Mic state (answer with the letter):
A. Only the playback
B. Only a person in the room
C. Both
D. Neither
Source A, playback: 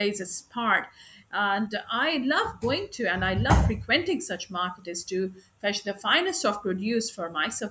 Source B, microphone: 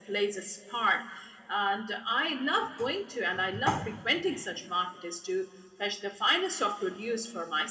A